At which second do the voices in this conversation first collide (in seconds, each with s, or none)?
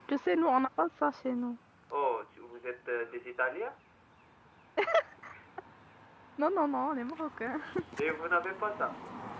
none